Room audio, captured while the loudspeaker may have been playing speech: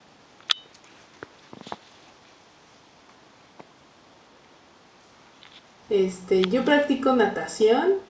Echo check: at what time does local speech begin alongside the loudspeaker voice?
5.9 s

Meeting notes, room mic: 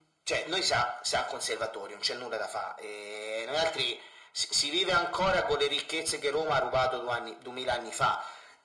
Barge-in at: none

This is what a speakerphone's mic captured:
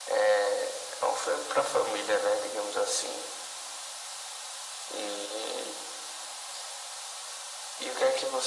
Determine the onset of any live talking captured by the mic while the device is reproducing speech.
none

